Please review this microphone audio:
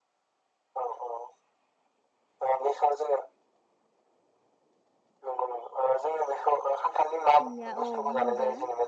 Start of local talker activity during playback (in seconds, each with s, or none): 7.4 s